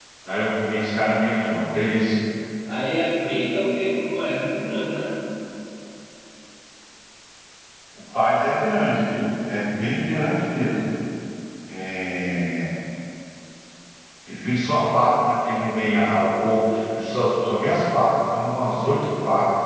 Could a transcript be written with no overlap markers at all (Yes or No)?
Yes